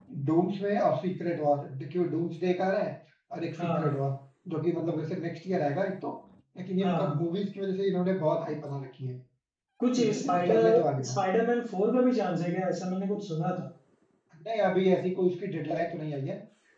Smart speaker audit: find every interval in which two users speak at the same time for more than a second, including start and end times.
9.9-11.2

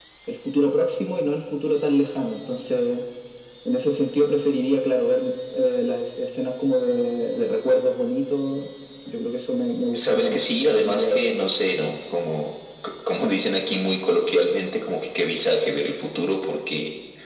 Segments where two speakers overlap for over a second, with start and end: 9.9-11.2

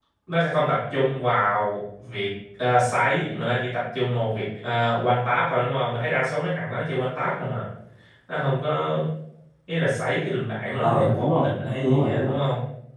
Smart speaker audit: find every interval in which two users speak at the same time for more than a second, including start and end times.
10.8-12.3

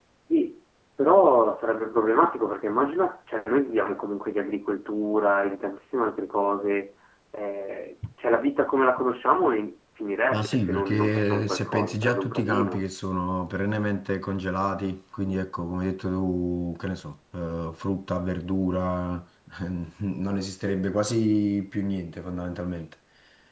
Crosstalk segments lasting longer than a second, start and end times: 10.3-12.8

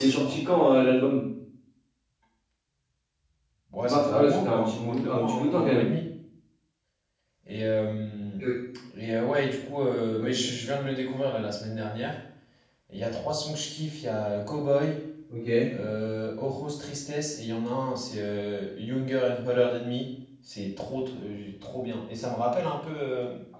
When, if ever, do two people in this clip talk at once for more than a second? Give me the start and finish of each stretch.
3.8-5.9

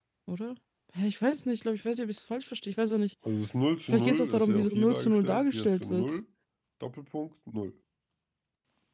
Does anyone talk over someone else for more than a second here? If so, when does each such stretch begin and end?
3.9-6.2

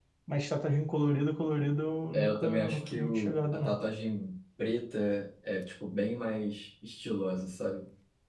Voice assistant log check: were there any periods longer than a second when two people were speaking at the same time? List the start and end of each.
2.1-3.8

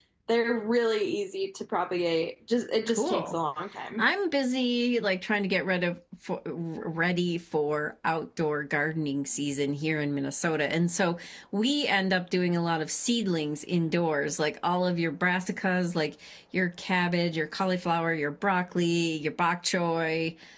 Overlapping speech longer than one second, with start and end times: none

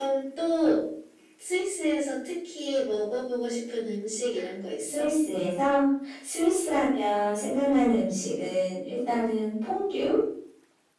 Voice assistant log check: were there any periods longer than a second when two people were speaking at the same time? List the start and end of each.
none

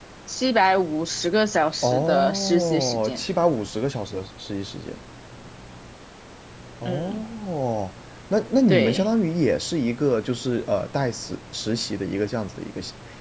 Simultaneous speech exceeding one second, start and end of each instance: 1.8-3.2

